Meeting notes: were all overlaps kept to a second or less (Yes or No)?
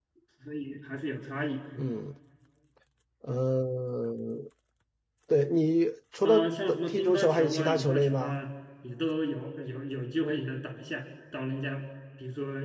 No